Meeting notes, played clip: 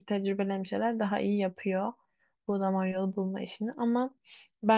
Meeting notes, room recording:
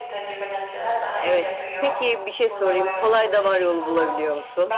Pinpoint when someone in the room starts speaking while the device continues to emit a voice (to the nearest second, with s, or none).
1 s